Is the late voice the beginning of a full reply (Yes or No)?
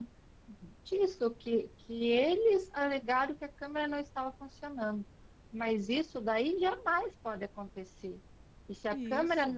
No